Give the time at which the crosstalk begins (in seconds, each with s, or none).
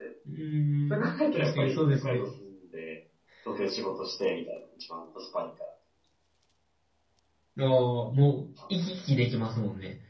0.9 s